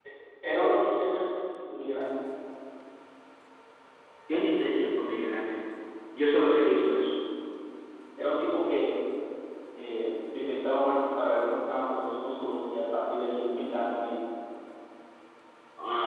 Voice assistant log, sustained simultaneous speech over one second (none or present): none